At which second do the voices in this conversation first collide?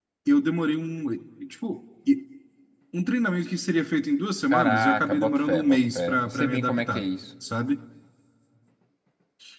4.5 s

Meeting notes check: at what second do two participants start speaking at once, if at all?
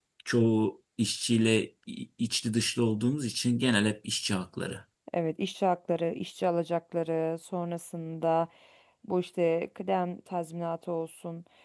none

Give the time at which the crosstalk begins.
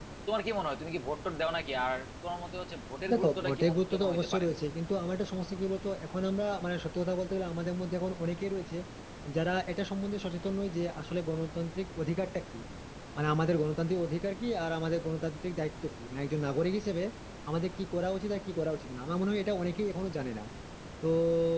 3.1 s

